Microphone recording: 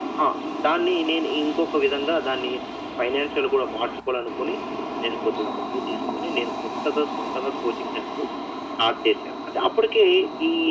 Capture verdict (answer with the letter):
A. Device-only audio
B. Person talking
A